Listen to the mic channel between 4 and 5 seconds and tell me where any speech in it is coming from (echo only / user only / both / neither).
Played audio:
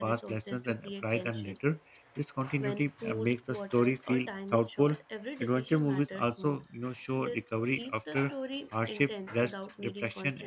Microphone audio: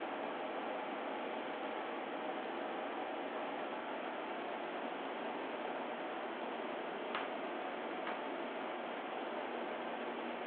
neither